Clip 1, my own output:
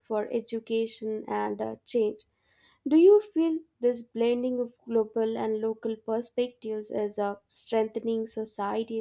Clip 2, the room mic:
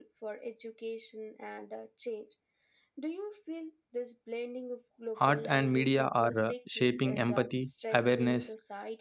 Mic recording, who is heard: both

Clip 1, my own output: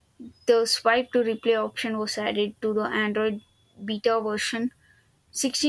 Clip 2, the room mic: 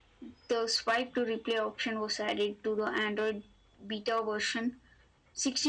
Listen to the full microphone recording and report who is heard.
echo only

